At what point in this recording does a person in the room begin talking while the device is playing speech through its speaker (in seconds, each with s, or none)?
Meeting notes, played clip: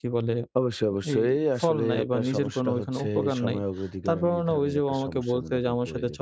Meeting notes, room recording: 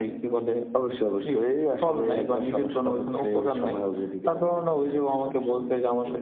none